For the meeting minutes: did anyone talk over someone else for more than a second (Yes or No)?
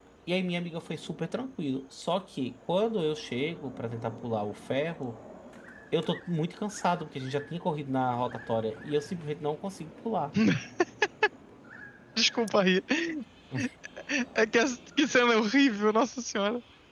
No